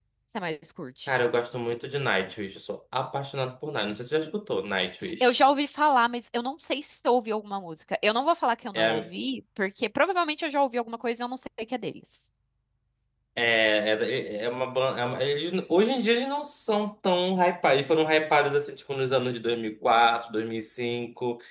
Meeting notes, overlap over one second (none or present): none